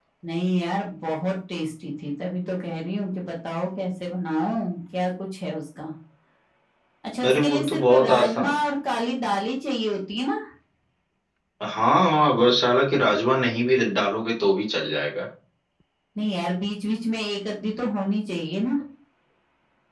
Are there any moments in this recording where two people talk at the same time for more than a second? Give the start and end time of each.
7.3-8.5

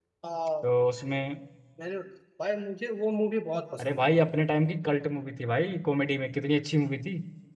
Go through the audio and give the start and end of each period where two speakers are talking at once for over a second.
none

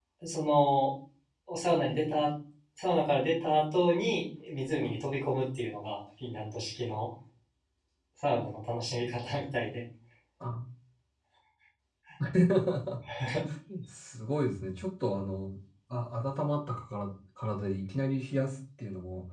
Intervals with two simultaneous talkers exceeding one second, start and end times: none

